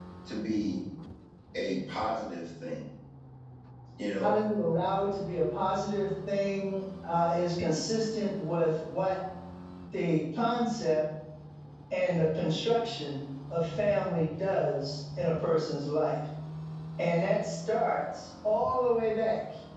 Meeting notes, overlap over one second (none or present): none